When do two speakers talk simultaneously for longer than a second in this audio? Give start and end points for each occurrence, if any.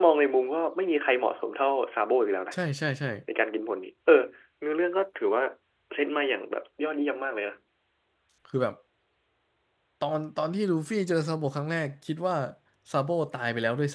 none

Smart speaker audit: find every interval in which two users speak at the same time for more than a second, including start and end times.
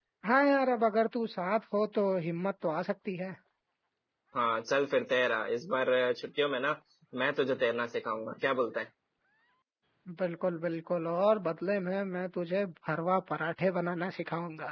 none

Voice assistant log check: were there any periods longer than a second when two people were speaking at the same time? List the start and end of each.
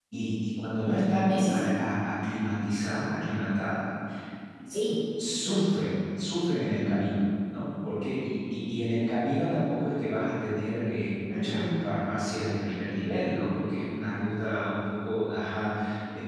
none

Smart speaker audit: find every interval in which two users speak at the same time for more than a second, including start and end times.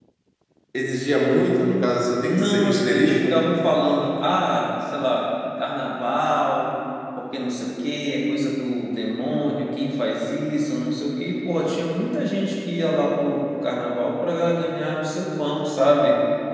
2.2-3.4

